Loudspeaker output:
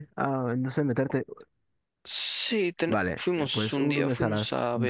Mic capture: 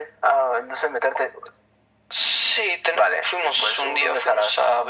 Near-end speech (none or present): none